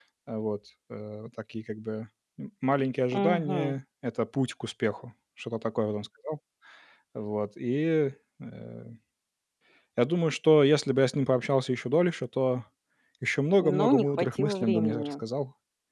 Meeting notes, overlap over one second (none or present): present